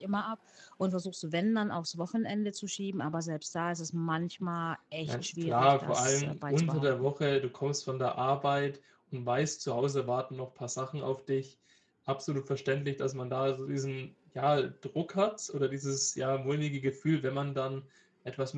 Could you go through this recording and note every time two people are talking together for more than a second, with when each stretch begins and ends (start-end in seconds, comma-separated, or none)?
5.0-7.1